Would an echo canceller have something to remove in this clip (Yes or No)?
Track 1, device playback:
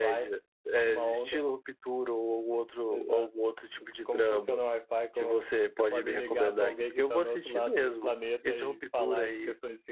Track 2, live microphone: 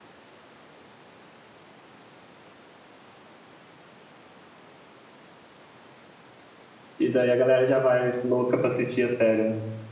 No